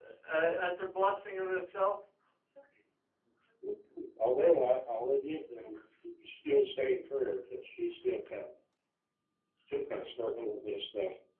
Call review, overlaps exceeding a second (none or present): none